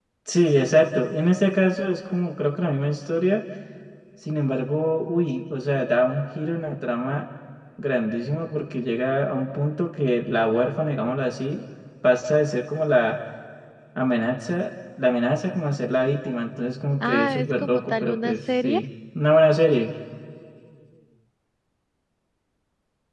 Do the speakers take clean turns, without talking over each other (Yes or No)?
No